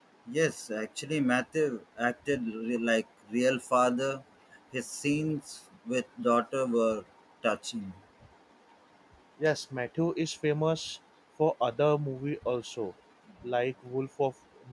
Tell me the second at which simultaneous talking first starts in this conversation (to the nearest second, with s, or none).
none